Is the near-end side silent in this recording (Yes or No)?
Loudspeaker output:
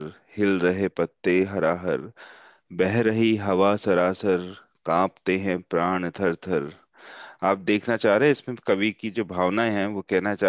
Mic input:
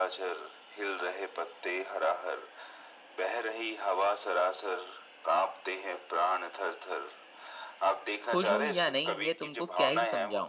No